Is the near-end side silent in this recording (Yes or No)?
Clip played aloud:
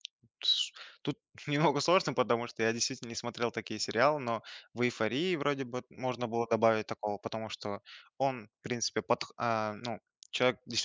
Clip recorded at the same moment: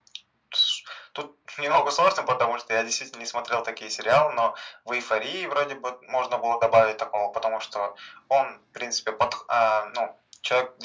Yes